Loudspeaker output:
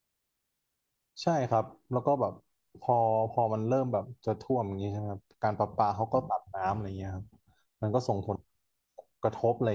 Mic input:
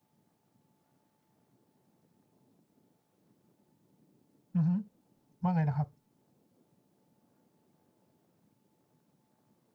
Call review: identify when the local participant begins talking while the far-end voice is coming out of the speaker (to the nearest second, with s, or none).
5 s